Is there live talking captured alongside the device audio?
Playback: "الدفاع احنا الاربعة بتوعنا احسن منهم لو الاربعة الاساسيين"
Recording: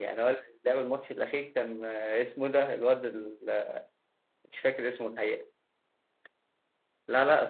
Yes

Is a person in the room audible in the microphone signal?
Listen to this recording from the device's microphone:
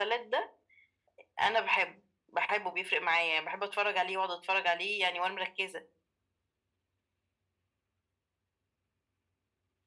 No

